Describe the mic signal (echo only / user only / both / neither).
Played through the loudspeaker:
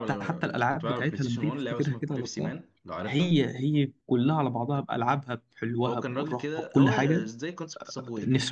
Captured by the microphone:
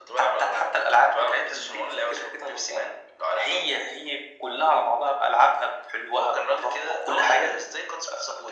echo only